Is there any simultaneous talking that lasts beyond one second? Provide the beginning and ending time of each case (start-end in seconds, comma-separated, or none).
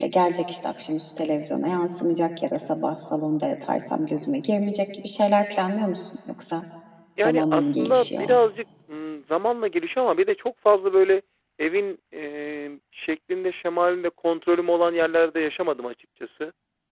7.2-8.4